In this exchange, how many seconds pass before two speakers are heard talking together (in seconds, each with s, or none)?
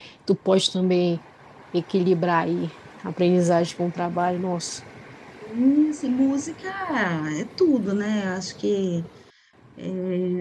none